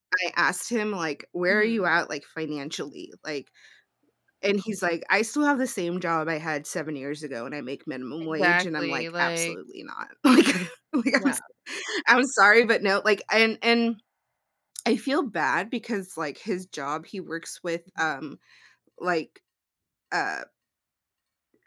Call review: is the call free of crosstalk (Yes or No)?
No